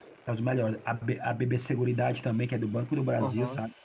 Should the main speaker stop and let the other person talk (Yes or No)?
Yes